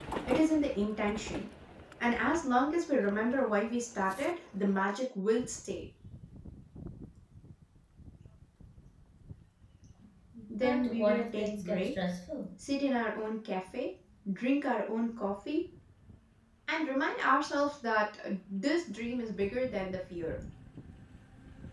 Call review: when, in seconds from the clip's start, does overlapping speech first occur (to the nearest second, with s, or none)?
11 s